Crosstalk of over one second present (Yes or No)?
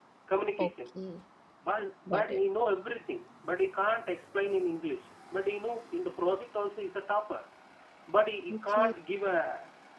No